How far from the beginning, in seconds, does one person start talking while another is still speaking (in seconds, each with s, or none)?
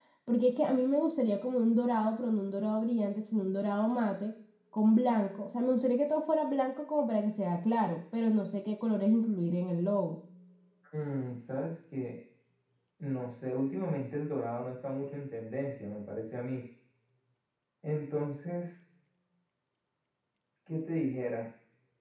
none